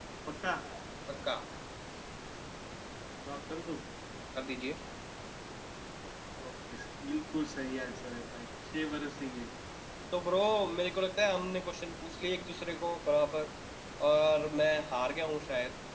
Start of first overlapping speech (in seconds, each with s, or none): none